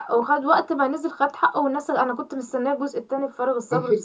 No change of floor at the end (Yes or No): No